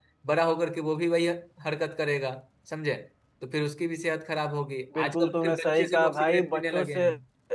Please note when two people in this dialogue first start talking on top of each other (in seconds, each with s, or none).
5.0 s